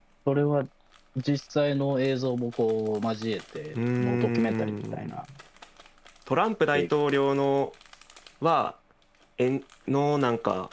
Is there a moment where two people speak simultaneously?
Yes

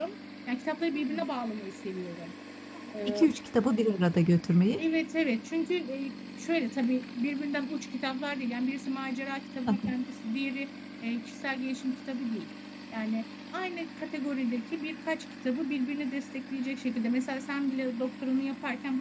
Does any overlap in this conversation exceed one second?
No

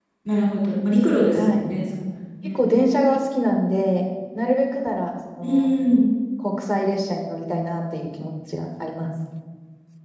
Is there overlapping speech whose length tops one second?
No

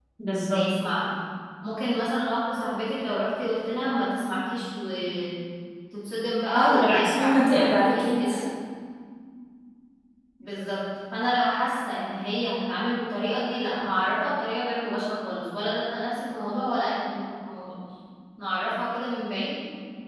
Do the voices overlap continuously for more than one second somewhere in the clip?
Yes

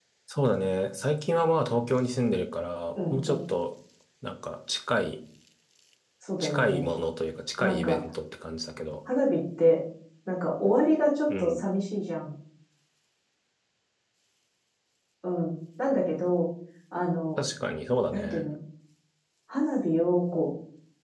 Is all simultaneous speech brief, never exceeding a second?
Yes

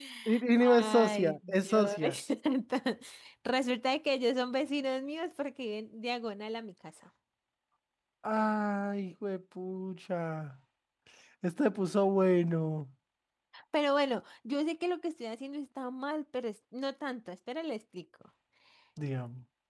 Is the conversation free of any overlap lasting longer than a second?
No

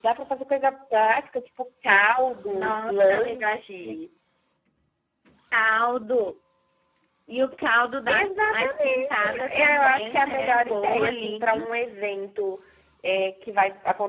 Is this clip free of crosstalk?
No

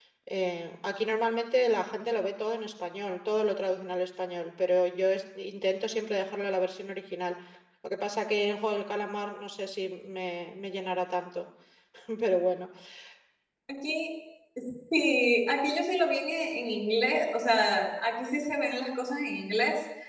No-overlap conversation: Yes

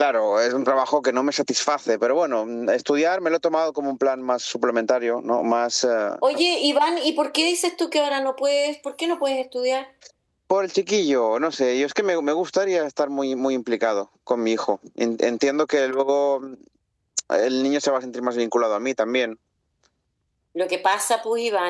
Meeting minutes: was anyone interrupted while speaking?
No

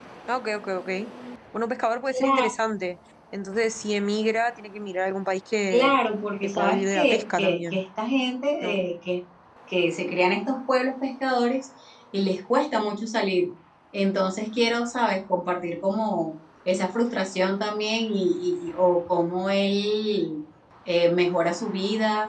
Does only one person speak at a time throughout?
No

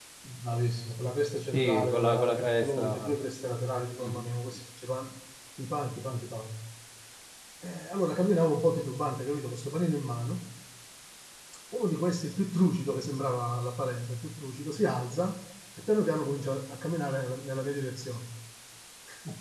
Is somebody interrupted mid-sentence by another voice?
Yes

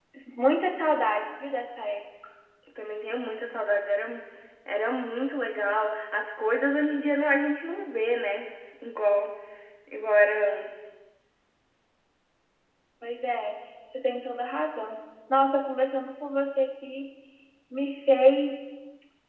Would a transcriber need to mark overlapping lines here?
No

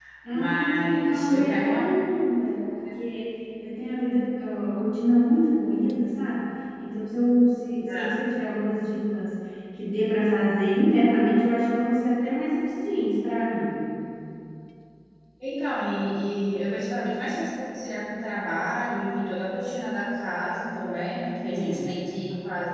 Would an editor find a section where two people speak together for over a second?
Yes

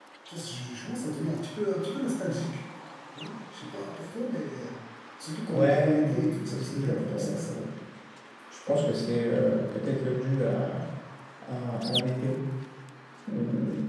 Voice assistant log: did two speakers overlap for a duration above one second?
Yes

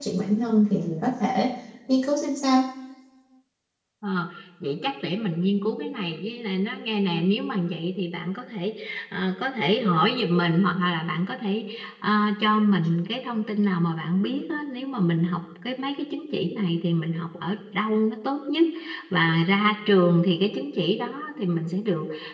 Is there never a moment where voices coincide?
Yes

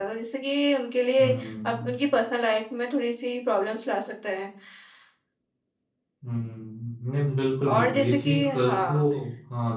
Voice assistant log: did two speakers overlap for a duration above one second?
Yes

